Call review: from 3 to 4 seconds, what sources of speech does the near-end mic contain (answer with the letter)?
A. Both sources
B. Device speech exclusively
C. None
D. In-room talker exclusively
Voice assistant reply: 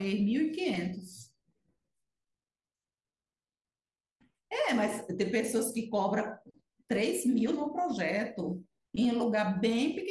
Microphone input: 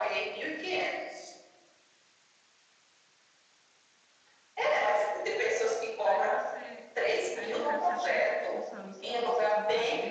C